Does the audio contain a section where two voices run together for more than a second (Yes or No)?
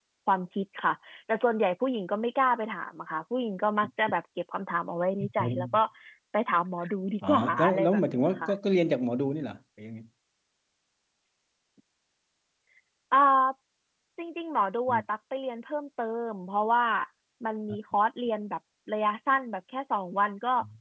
Yes